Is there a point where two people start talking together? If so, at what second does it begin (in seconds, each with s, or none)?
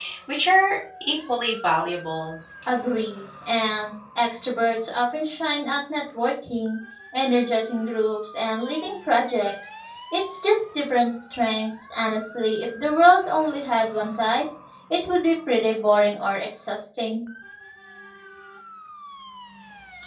none